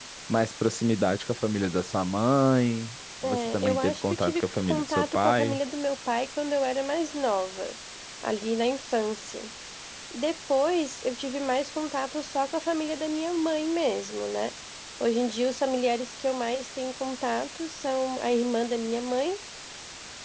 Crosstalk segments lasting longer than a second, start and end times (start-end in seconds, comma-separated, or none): 3.2-5.6